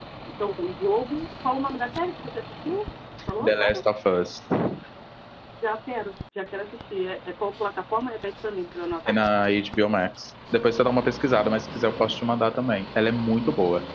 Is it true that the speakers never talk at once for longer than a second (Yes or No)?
Yes